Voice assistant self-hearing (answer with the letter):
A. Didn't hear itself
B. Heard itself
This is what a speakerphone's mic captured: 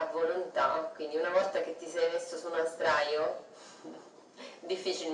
B